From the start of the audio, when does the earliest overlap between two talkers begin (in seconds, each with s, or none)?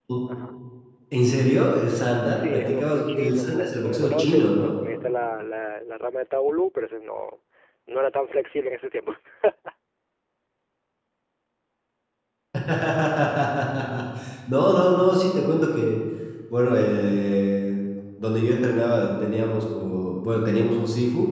2.3 s